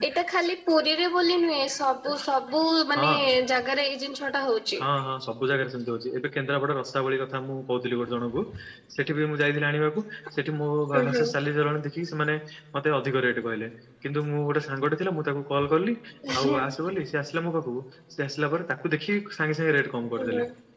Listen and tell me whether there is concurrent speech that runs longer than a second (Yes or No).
No